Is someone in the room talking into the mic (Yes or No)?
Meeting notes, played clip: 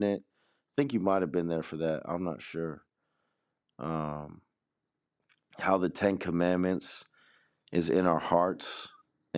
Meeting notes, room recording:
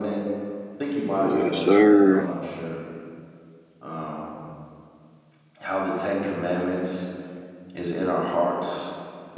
Yes